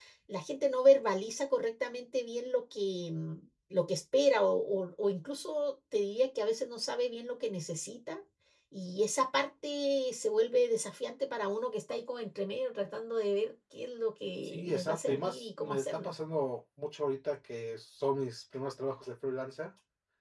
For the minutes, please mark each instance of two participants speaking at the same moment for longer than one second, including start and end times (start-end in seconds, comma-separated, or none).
14.4-16.1